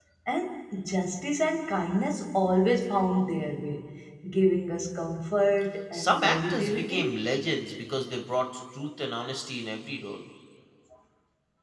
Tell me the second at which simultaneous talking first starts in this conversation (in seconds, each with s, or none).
5.9 s